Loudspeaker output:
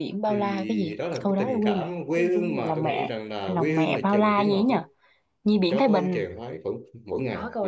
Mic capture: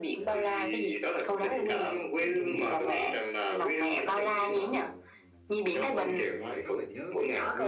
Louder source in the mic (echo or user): echo